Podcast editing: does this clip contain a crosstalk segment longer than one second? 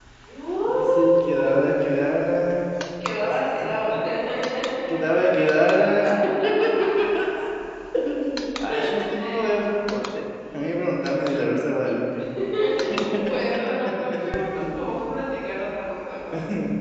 Yes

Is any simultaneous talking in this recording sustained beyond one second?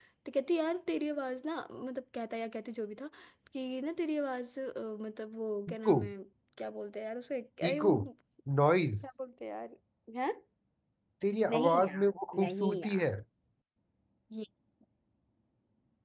Yes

